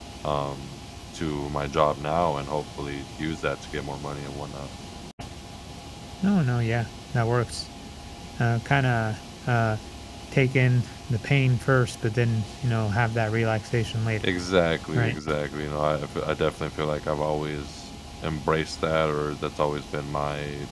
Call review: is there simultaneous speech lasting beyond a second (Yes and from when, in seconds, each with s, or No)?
No